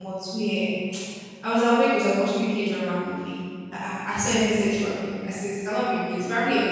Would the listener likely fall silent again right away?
Yes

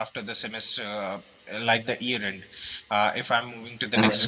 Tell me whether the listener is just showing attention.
Yes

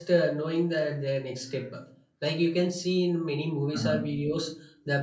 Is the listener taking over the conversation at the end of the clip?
No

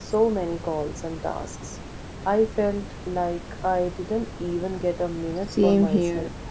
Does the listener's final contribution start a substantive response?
Yes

